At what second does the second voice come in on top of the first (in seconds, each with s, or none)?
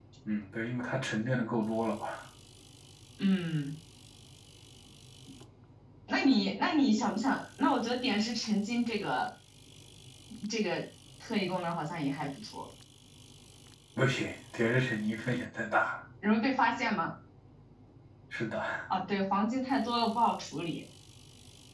none